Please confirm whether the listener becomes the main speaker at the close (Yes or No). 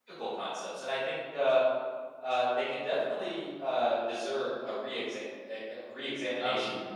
No